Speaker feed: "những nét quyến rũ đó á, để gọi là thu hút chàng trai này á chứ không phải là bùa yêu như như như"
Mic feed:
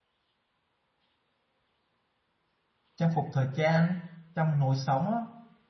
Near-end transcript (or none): trang phục thời trang trong lối sống á.